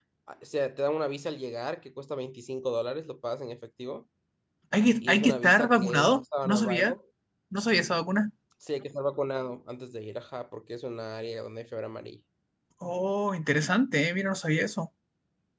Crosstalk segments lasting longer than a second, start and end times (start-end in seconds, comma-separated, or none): 5.0-6.9